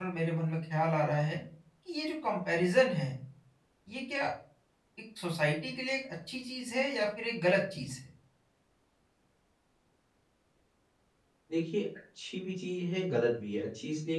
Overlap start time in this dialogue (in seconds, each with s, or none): none